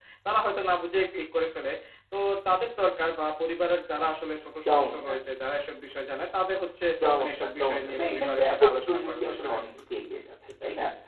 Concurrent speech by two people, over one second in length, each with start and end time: 7.2-9.6

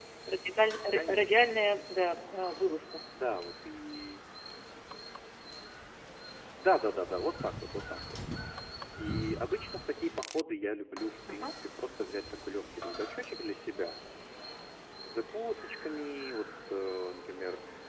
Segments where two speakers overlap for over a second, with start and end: none

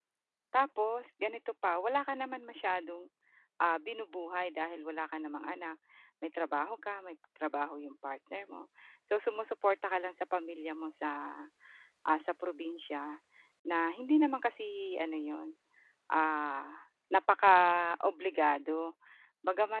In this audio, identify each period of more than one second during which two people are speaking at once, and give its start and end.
none

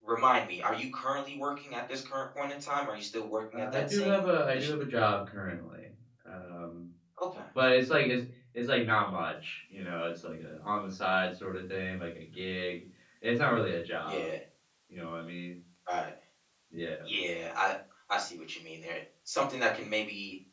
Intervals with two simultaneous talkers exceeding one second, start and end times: 3.5-4.8

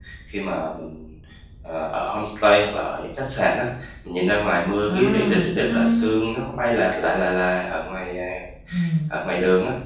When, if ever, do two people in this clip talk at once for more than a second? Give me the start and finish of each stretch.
4.9-6.1

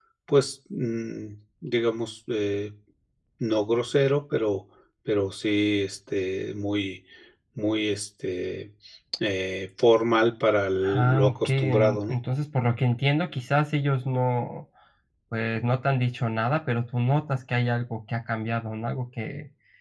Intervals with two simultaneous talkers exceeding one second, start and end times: 10.8-12.2

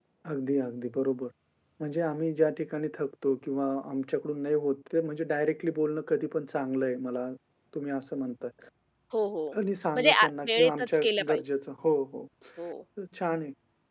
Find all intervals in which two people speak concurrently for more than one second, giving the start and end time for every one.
9.9-11.4

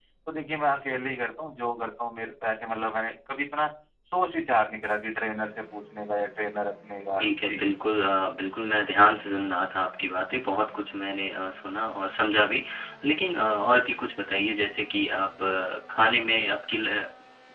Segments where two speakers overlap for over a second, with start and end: none

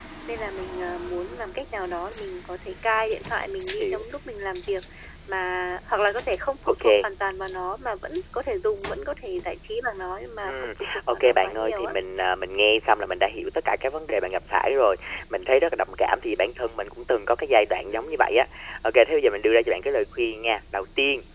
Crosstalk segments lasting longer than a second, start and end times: 10.4-12.0

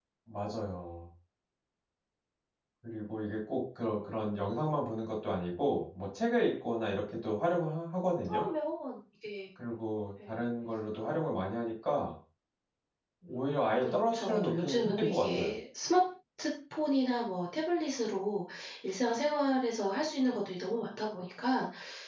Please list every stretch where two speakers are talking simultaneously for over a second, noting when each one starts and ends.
13.8-15.5

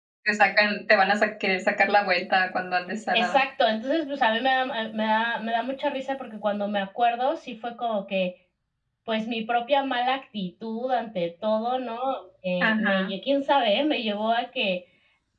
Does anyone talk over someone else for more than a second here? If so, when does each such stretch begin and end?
none

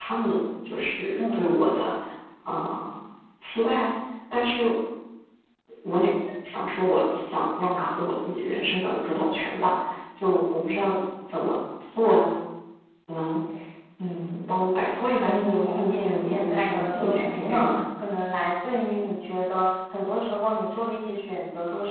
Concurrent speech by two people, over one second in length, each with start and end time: 15.1-17.7

